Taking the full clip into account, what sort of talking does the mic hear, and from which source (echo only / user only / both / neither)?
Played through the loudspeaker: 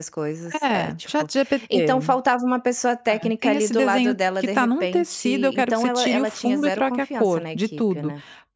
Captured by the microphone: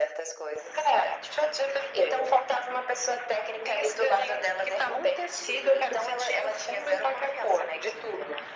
echo only